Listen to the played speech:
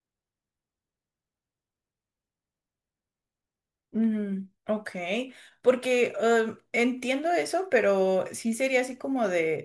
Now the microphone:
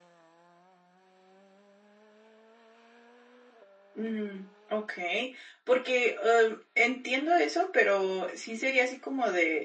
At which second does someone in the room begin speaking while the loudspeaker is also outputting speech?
none

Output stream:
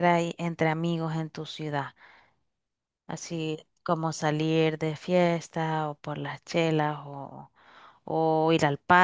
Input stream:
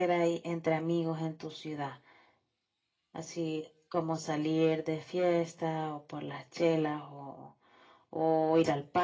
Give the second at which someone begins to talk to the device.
none

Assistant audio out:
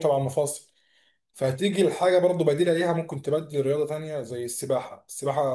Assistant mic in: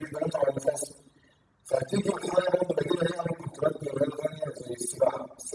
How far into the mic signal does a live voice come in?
none

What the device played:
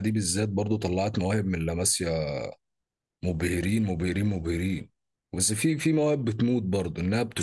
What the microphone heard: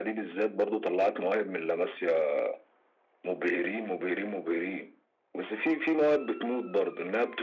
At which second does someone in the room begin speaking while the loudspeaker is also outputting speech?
none

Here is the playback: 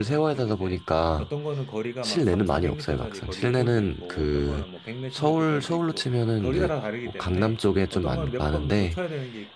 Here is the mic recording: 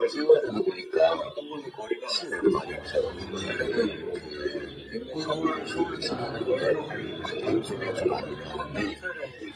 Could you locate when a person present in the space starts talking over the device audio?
3 s

